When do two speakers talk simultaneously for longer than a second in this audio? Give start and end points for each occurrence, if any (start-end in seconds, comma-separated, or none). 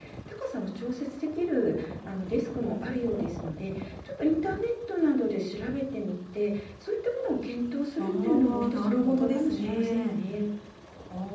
8.0-10.2